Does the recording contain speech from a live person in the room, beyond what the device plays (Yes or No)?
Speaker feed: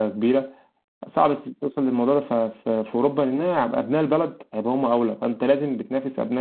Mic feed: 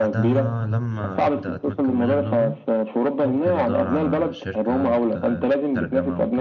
Yes